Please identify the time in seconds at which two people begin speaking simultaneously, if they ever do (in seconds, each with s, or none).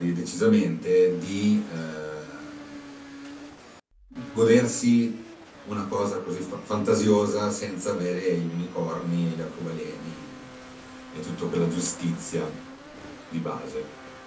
none